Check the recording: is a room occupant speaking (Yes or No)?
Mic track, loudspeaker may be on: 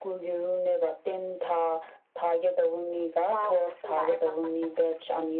Yes